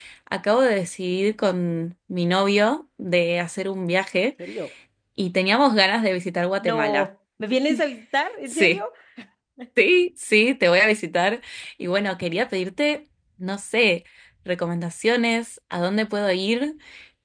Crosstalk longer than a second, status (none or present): none